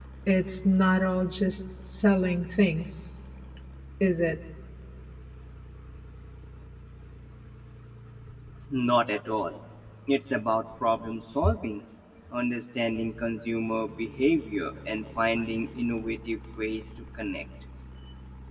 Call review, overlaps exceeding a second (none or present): none